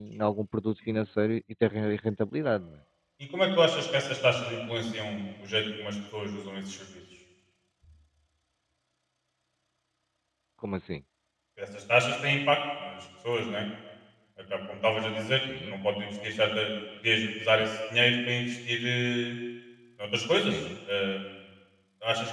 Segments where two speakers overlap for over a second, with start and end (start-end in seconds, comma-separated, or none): none